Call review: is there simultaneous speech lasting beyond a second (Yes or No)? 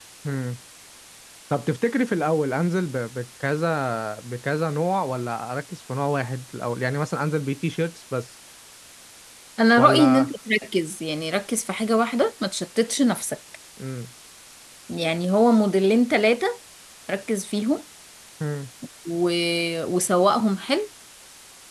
No